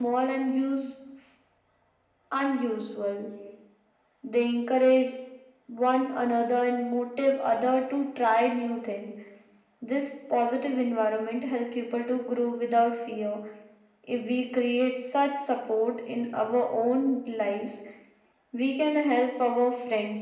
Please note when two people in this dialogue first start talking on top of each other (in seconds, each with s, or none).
none